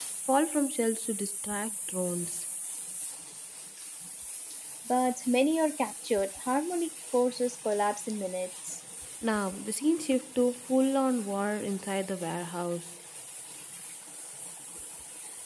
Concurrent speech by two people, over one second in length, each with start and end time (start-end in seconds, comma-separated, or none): none